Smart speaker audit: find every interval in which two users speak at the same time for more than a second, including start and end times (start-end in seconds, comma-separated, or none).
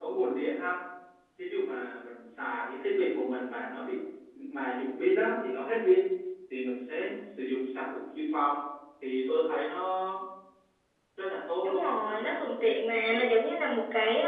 11.6-13.2